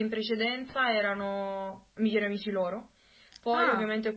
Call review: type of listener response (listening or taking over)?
listening